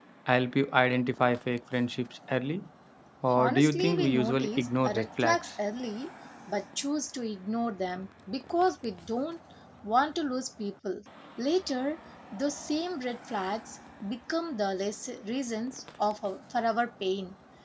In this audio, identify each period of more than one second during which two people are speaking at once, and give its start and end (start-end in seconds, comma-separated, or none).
3.3-5.5